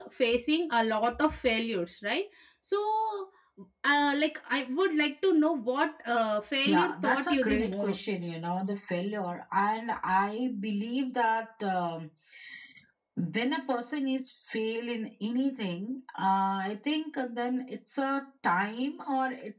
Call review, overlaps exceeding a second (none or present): present